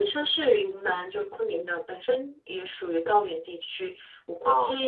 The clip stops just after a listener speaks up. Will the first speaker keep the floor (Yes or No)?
Yes